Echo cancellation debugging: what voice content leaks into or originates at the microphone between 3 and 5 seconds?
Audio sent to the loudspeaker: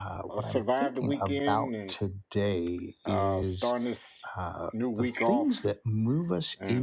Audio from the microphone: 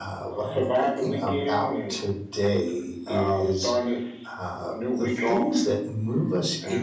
echo only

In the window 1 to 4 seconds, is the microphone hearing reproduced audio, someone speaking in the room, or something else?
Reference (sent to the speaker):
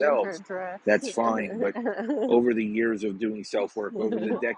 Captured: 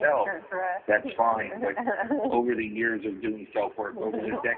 echo only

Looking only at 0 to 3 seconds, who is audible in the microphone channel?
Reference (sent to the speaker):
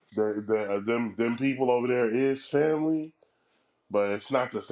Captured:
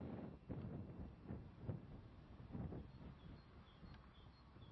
neither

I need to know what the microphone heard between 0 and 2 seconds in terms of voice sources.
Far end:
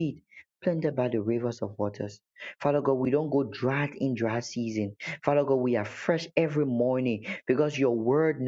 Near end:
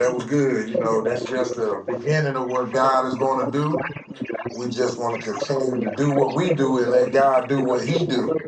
both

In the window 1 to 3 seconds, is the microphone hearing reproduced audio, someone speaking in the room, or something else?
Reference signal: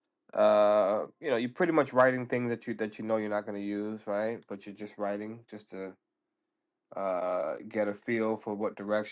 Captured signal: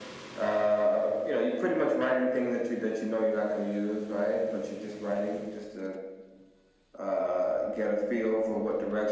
echo only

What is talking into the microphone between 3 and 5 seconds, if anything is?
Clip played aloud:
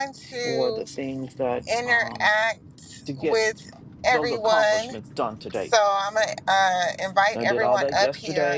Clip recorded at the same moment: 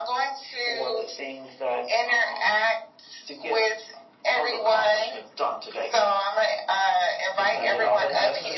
echo only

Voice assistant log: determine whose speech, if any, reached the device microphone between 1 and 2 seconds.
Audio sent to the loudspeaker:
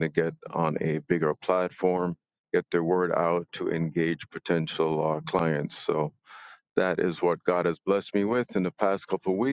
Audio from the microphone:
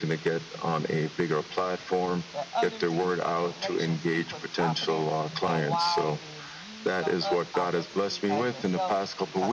echo only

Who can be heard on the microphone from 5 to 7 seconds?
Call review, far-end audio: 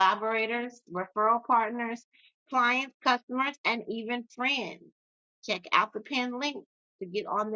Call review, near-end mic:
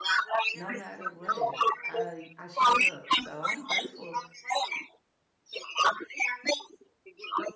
echo only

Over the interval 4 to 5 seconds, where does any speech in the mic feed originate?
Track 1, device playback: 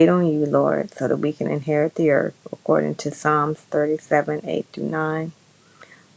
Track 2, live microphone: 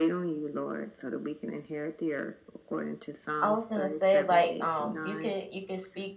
both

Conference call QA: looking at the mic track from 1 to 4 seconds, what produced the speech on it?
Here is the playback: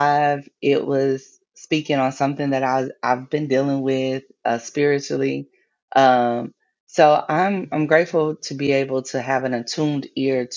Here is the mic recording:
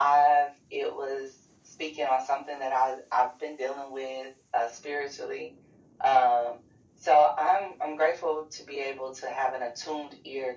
echo only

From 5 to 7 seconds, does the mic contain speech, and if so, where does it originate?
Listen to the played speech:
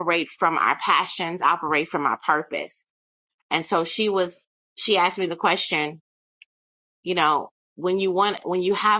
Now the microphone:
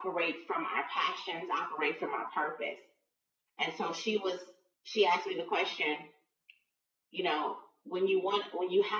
echo only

